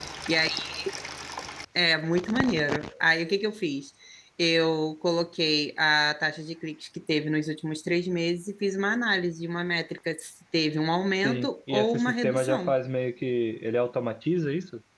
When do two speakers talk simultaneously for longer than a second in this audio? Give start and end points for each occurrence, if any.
11.2-12.7

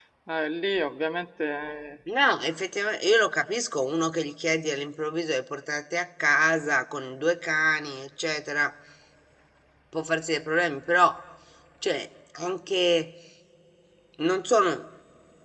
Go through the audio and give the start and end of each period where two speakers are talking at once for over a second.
none

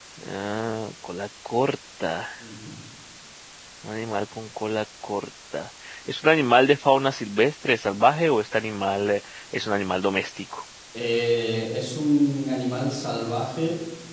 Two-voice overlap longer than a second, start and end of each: none

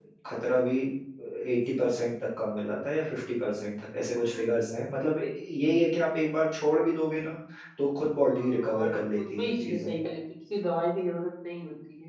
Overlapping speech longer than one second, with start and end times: 8.3-9.9

